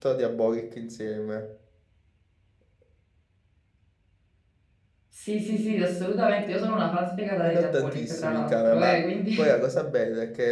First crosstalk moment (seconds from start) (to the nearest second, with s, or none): 7 s